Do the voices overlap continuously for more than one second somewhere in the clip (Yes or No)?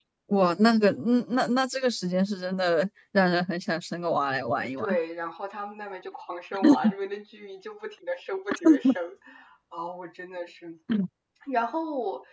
No